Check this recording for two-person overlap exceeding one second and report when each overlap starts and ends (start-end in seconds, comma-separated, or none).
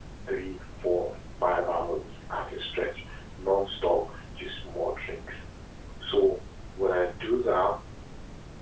none